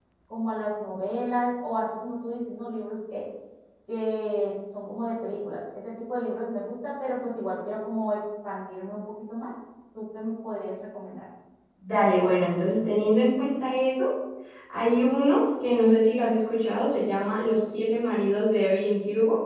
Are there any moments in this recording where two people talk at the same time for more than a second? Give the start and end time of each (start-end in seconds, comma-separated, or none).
none